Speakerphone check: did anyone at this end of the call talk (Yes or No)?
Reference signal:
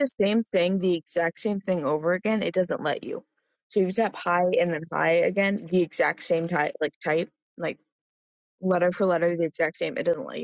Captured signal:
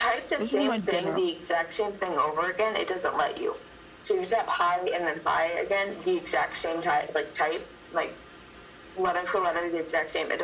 Yes